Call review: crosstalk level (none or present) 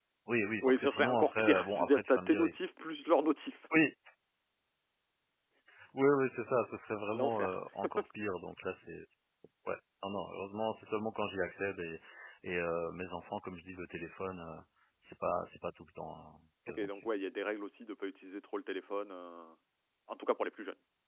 present